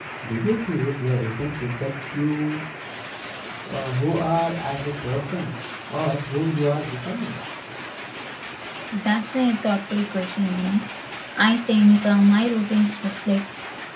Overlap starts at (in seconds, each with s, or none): none